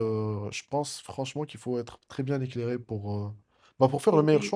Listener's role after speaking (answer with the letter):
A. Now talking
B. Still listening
A